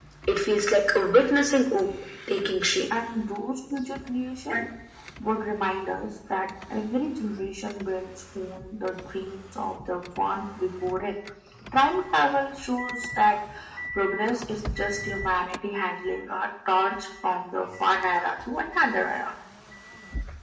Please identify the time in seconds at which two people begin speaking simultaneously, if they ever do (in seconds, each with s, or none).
none